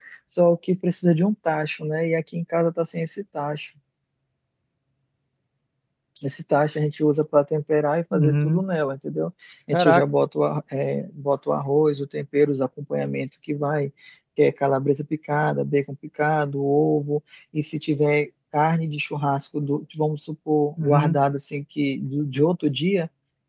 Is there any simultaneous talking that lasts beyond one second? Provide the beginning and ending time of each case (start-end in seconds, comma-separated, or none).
none